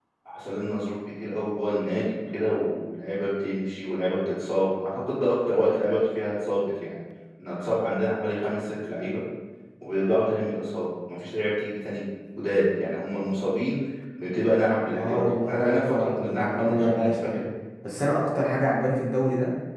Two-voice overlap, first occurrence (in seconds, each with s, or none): 14.9 s